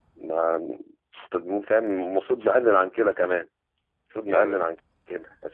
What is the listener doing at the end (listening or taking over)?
listening